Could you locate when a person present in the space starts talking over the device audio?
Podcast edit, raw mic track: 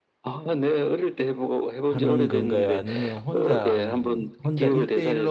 1.9 s

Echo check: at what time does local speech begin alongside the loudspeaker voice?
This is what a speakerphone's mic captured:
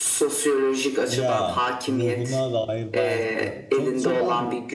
1.1 s

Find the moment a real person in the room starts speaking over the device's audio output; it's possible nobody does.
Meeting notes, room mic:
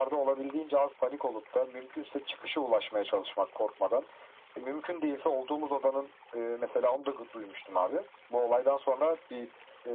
none

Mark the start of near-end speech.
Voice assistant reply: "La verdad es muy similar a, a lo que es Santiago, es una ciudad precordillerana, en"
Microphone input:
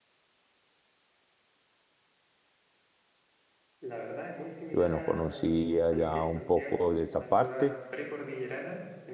4.7 s

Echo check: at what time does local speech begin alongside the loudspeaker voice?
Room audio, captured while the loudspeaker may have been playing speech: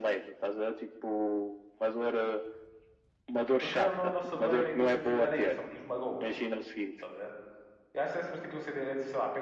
3.6 s

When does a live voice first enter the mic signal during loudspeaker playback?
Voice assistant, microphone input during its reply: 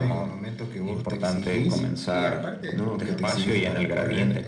1.7 s

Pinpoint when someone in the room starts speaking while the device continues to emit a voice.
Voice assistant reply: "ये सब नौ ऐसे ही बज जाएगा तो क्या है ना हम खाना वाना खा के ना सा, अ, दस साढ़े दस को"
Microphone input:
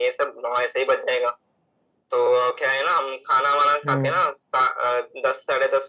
3.8 s

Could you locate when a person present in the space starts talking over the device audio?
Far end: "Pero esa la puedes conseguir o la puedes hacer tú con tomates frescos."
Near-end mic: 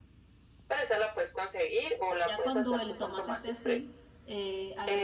2.3 s

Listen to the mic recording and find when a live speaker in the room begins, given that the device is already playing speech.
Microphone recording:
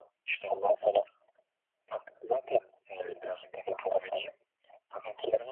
none

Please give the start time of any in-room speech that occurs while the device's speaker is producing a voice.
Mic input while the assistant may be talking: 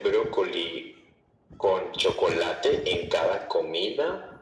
none

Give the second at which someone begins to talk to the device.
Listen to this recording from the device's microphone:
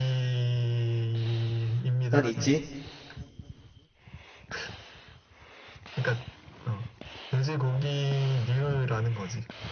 2.1 s

